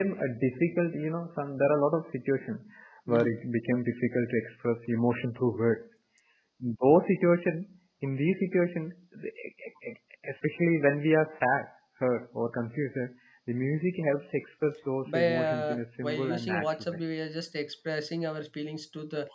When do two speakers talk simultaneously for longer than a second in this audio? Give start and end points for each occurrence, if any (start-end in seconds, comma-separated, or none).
15.1-17.0